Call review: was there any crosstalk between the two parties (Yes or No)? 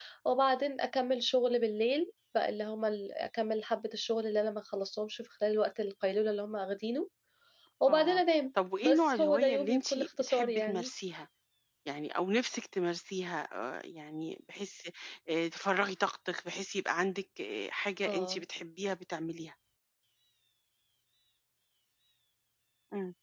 Yes